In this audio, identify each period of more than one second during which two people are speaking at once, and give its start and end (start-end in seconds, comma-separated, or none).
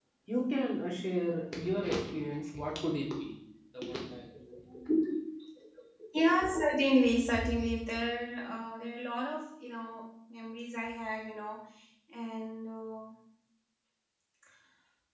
none